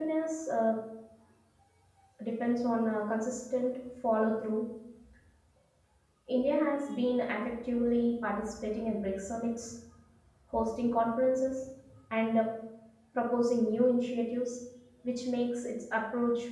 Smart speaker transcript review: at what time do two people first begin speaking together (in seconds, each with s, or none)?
none